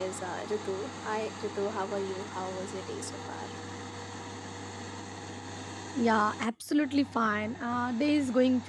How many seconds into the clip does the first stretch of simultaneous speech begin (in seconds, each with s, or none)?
none